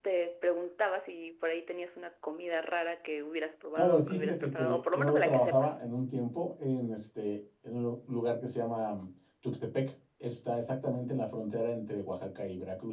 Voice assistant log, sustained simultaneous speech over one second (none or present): present